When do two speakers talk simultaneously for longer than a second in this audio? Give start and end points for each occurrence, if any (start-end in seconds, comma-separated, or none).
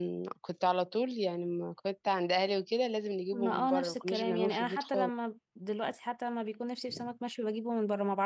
3.3-5.1